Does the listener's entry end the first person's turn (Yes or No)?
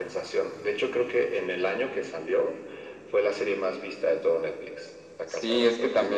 Yes